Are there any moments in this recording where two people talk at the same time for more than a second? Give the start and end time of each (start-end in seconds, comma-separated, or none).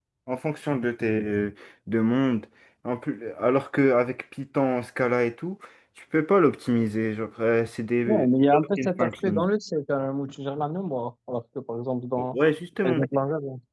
8.1-9.5